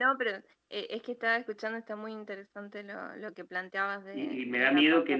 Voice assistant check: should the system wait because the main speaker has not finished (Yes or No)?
No